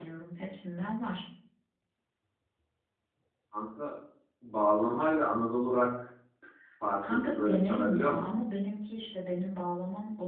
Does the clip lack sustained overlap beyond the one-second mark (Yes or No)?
No